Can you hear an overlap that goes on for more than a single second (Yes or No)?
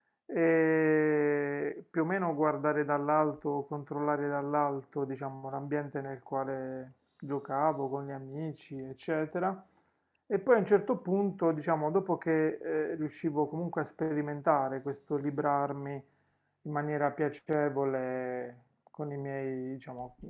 No